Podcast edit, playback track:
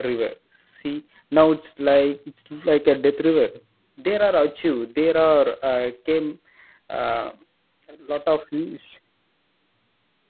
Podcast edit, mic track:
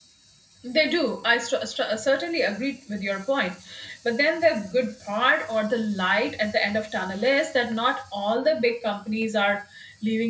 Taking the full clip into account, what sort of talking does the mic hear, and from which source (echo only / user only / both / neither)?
user only